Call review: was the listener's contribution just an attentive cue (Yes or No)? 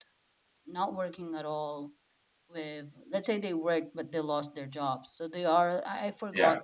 Yes